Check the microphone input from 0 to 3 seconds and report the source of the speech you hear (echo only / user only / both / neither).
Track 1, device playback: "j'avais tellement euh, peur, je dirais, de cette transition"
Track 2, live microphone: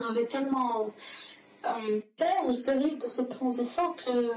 echo only